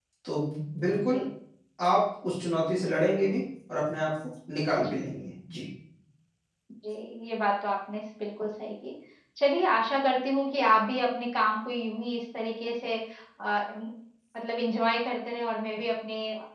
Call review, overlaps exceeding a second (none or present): none